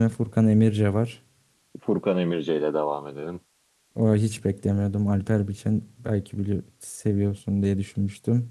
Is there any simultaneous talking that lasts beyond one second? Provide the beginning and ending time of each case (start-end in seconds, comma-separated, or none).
none